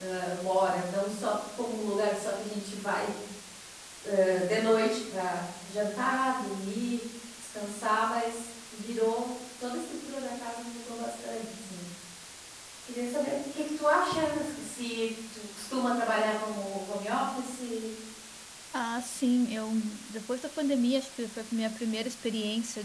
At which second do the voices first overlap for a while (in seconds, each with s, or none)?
none